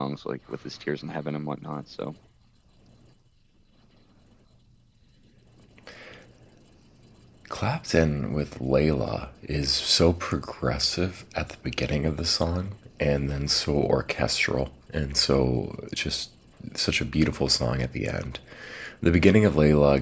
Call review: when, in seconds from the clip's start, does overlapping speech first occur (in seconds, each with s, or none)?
none